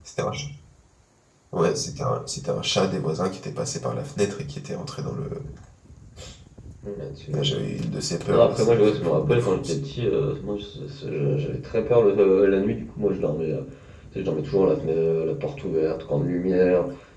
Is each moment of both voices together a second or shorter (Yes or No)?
No